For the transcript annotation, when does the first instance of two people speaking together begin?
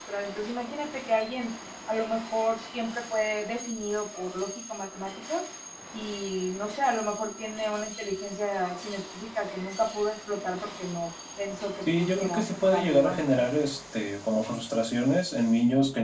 12 s

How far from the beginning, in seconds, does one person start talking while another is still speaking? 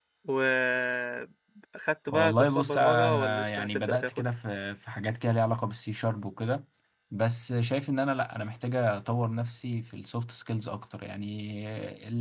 2 s

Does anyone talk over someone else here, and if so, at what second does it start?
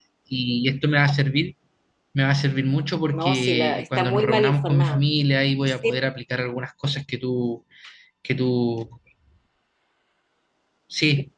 3 s

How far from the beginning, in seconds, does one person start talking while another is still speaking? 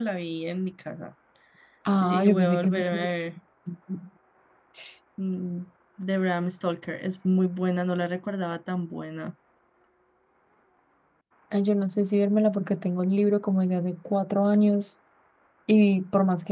2 s

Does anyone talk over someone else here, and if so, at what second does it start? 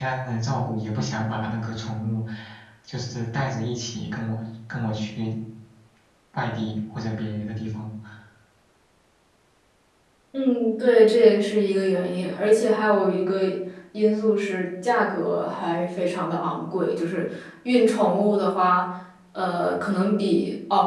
none

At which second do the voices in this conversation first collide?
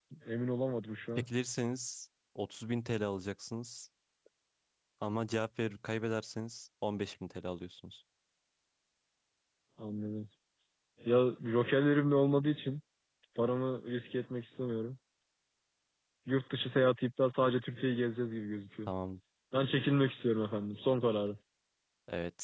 none

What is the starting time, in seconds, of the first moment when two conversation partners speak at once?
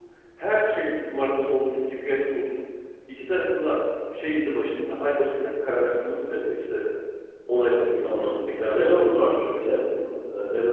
8 s

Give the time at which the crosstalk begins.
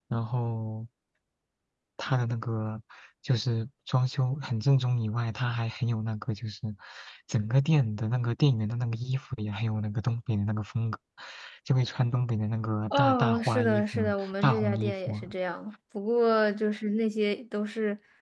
13 s

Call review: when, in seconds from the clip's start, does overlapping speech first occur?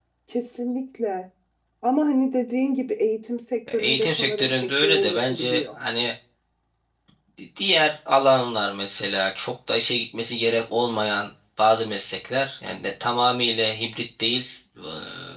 4 s

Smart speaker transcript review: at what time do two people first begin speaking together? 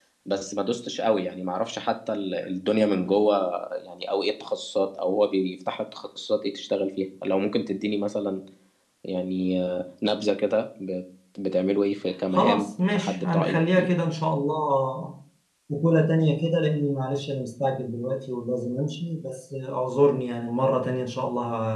12 s

